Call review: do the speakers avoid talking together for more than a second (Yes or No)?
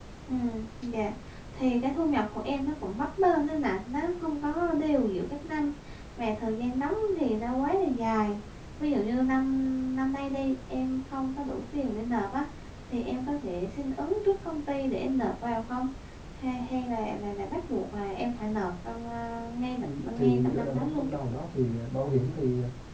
No